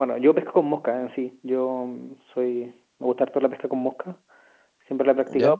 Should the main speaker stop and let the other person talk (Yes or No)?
No